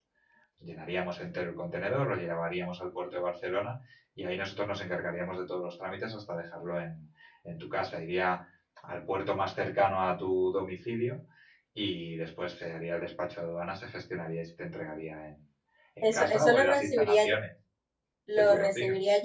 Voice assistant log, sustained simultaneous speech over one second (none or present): present